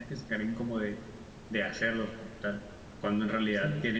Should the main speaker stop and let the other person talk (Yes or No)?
No